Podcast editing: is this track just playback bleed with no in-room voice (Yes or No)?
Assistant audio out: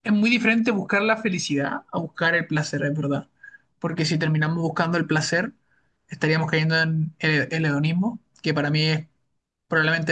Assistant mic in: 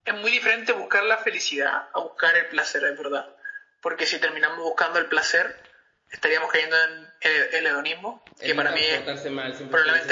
No